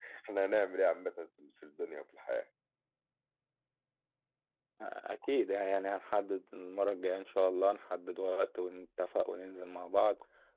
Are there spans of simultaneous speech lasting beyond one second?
No

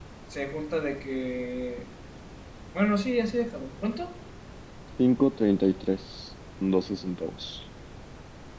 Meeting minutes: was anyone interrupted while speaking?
No

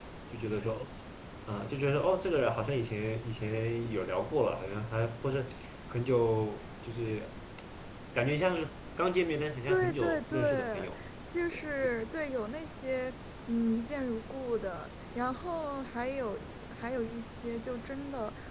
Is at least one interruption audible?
Yes, from 9.7 s

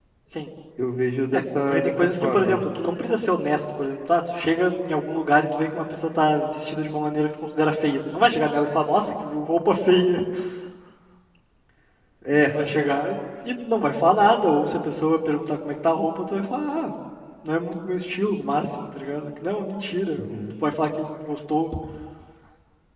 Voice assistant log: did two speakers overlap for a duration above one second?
Yes, from 1.3 s

